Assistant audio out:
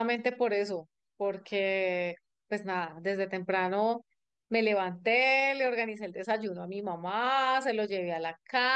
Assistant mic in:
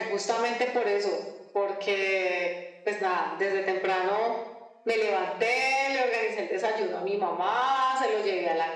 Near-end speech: none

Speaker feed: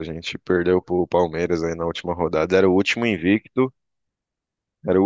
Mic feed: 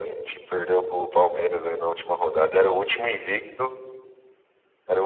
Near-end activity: none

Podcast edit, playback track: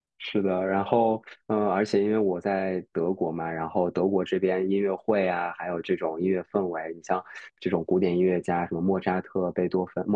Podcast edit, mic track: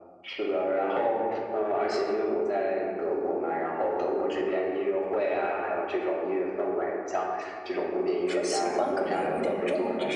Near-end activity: present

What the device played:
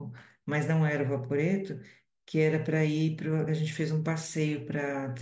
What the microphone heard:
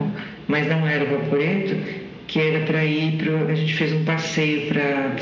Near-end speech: none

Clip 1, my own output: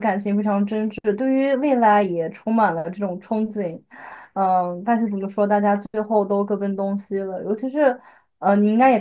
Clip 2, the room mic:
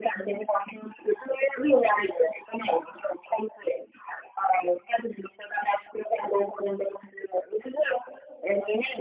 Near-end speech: none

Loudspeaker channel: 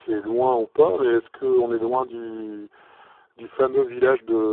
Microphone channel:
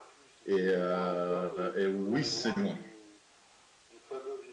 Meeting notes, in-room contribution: present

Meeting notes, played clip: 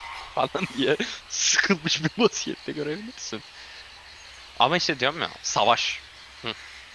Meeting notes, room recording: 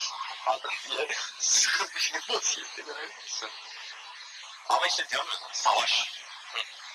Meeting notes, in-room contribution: none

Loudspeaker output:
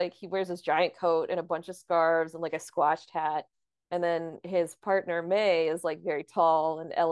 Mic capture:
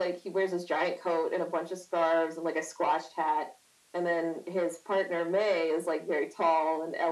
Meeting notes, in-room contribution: none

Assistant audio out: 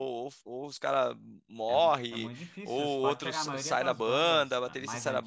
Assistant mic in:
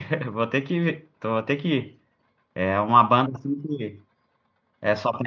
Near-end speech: present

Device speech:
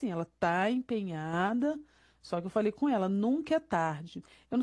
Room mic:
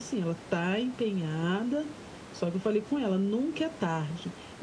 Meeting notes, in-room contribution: none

